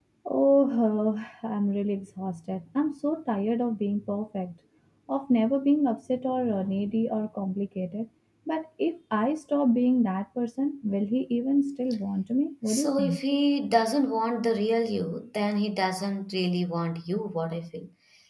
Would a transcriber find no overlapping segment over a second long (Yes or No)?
Yes